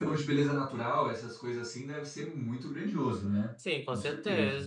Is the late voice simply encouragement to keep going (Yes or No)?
No